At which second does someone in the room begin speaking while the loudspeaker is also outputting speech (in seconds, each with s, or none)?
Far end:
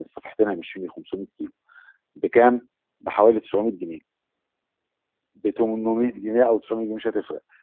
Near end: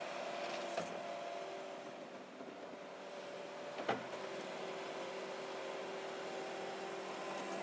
none